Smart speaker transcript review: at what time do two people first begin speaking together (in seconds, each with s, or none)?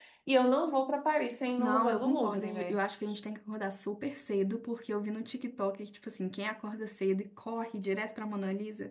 1.6 s